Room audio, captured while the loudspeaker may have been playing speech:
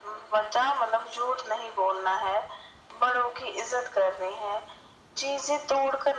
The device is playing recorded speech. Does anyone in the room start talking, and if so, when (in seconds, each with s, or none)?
none